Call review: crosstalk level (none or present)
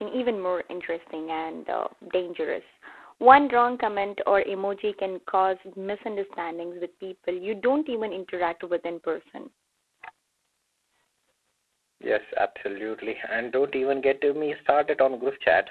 none